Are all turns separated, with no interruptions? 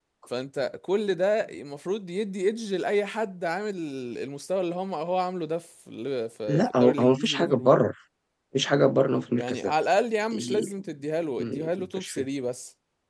No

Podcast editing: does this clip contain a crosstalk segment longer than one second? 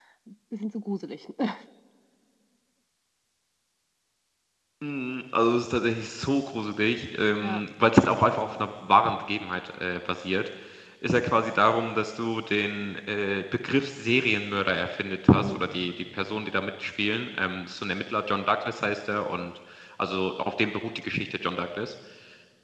No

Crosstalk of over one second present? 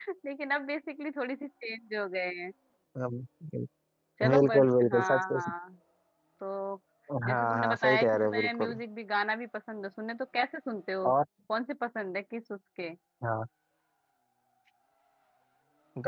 Yes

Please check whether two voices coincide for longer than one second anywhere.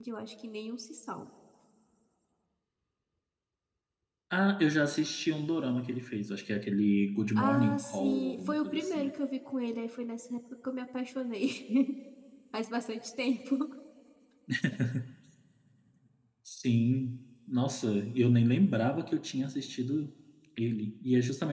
Yes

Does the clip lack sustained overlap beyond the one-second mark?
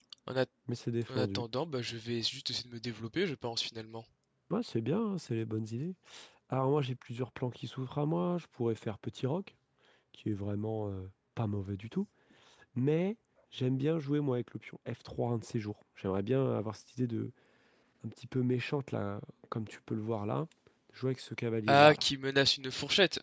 Yes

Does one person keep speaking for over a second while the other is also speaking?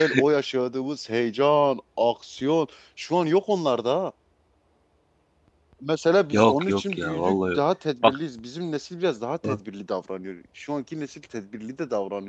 Yes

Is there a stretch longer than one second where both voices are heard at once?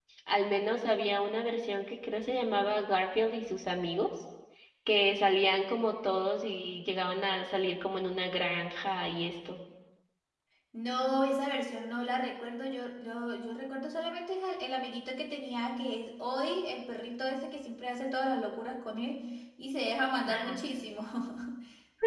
No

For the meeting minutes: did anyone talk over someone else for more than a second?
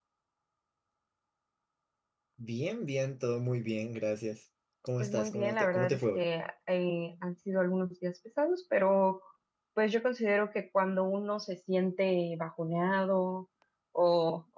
Yes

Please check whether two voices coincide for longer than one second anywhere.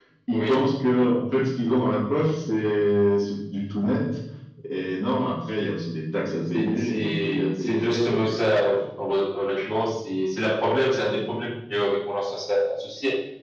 Yes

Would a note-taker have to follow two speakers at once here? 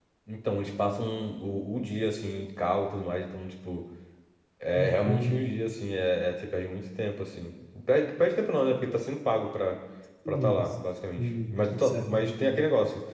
Yes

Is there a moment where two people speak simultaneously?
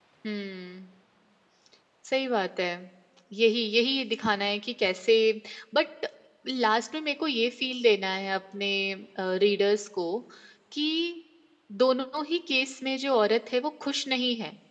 No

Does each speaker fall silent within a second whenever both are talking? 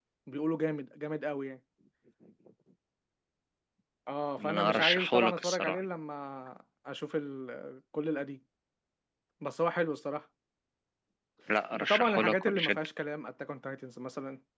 No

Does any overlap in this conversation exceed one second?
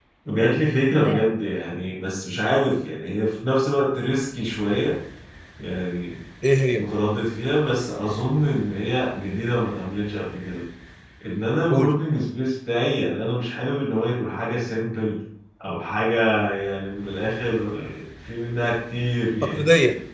No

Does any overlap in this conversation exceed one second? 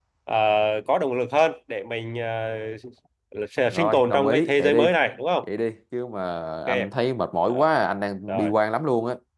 Yes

